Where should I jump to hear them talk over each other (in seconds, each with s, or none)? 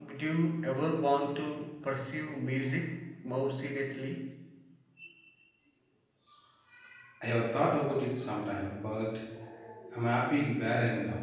none